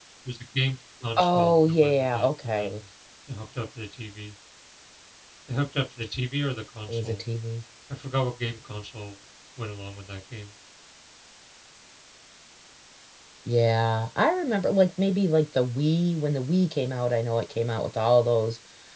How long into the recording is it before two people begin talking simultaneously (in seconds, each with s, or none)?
1.2 s